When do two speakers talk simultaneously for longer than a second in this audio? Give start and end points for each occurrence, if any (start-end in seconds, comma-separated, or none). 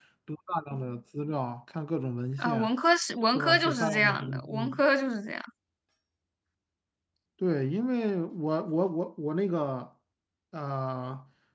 3.3-4.8